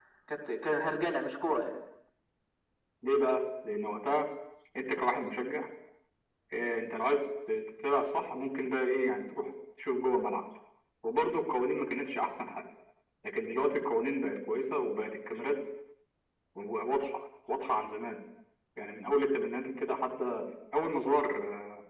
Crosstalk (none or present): none